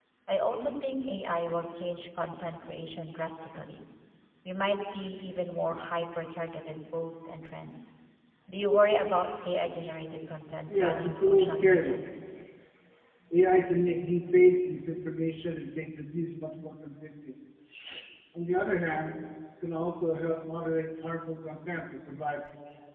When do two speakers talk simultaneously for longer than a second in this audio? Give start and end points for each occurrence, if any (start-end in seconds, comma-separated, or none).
10.7-12.0